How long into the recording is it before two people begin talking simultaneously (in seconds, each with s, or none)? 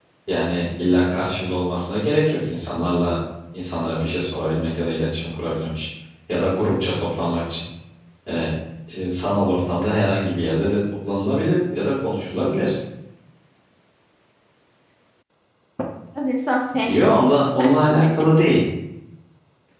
16.8 s